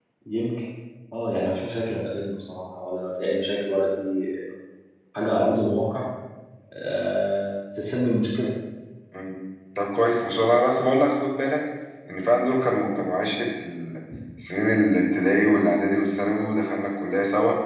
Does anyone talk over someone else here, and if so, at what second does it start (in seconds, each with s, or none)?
none